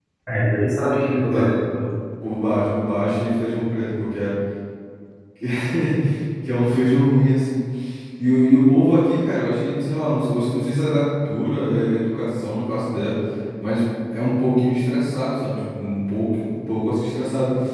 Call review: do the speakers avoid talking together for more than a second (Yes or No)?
Yes